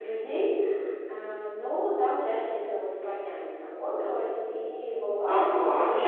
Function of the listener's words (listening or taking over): taking over